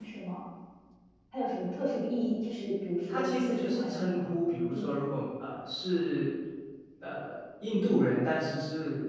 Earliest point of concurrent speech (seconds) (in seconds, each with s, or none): 3.1 s